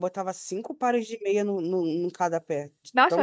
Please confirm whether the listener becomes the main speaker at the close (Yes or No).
Yes